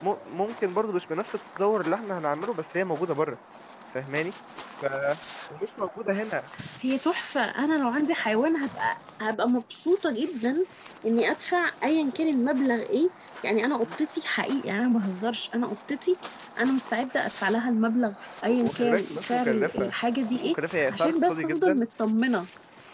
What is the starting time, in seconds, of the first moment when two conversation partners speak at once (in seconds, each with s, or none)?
18.5 s